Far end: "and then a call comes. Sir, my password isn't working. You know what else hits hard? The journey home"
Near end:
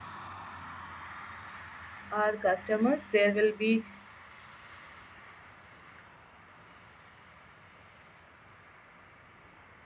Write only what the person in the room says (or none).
our customers, there will be